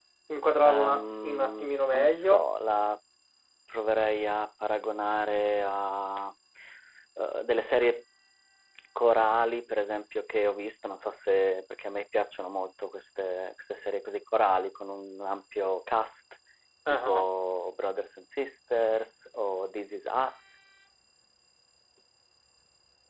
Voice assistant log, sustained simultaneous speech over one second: present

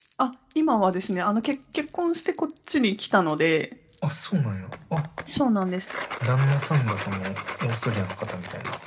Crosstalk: none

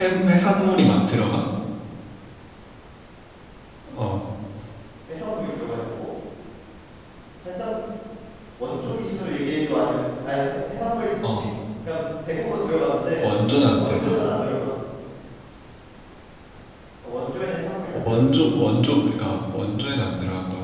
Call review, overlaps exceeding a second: none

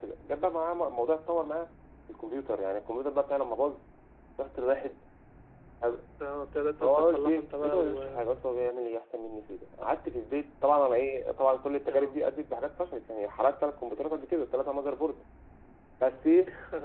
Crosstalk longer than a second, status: present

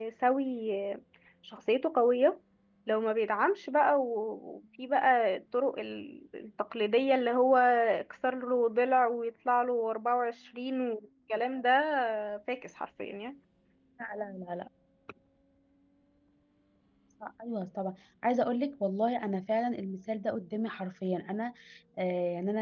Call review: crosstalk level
none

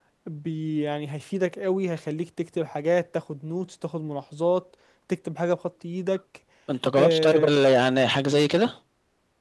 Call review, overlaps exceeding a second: none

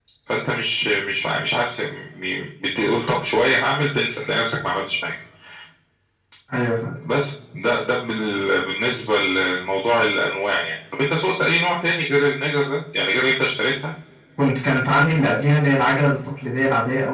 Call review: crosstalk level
none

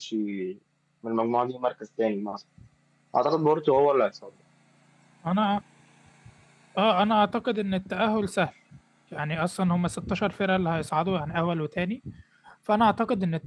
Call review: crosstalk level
none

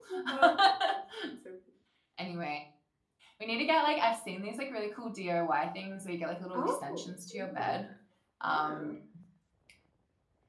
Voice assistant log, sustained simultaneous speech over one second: none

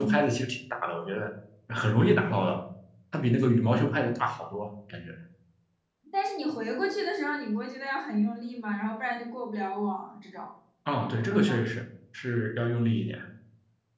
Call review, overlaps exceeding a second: none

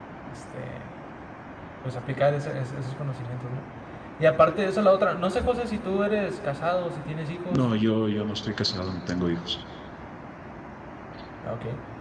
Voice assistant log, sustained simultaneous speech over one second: none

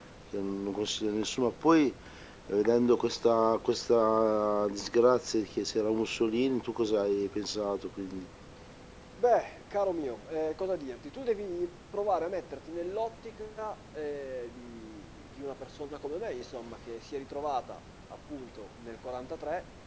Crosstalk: none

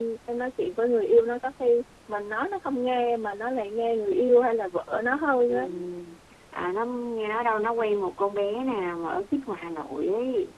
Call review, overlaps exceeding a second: none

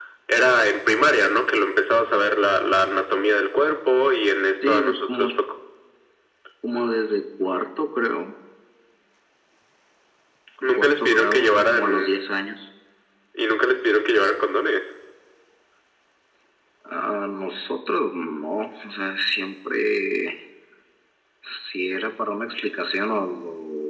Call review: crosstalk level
present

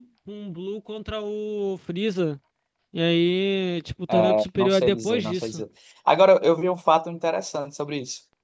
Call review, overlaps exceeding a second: present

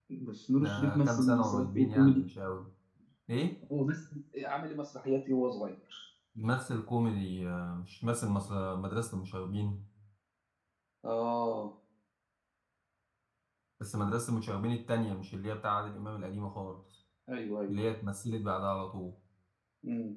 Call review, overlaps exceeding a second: present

